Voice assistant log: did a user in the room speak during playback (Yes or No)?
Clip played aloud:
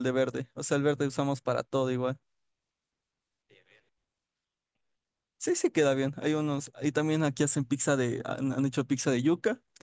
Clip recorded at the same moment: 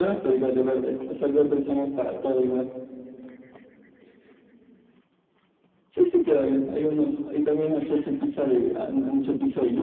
No